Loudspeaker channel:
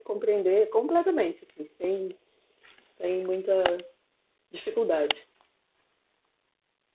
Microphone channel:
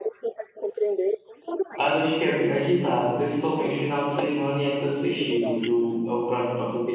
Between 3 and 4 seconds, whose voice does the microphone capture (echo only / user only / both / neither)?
both